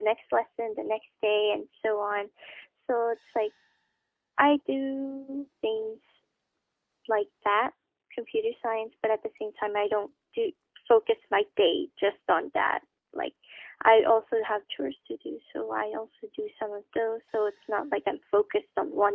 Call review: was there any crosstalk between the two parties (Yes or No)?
No